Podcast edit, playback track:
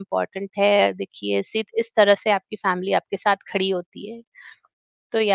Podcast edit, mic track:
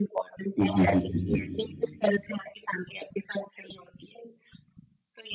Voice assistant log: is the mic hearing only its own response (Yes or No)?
No